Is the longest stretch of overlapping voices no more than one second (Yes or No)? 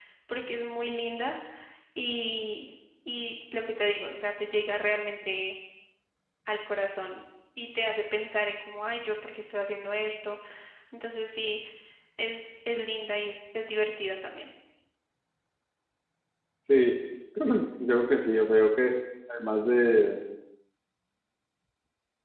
Yes